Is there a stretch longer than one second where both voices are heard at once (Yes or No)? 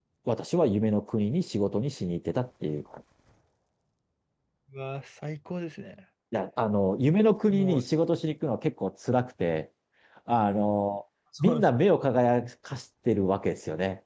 No